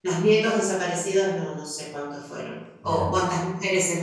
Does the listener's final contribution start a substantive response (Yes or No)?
No